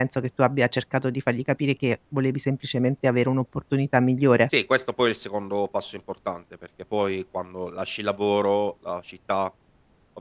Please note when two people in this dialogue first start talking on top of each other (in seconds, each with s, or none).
none